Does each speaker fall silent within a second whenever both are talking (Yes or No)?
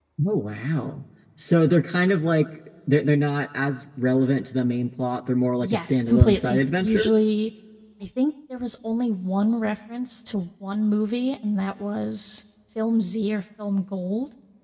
No